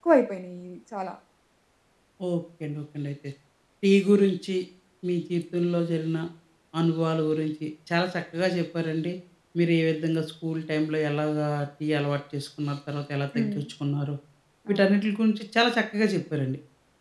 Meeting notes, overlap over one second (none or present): none